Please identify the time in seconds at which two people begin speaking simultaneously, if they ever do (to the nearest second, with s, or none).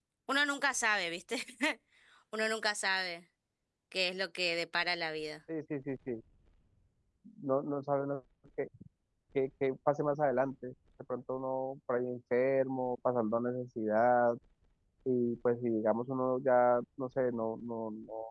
none